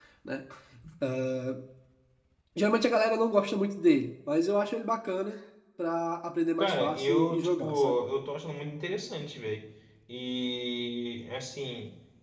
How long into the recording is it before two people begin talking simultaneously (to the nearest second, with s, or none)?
7 s